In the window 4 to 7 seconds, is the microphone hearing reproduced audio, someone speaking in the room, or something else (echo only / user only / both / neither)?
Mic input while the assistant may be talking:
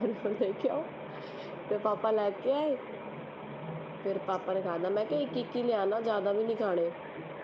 echo only